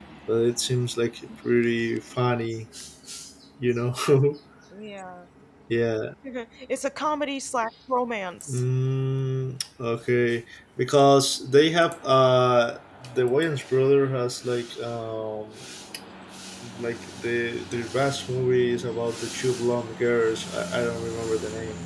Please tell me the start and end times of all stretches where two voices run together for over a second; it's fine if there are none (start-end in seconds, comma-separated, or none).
none